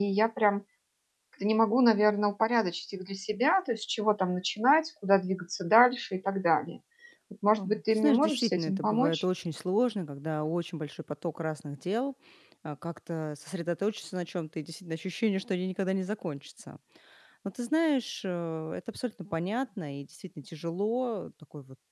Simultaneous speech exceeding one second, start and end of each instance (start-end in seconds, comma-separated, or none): 7.6-9.2